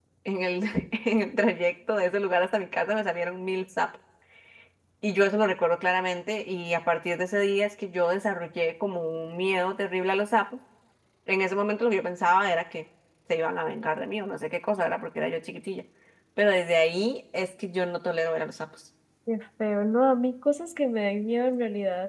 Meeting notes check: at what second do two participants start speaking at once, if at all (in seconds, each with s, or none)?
none